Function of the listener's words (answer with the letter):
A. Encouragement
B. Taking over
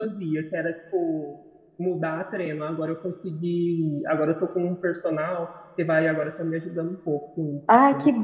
B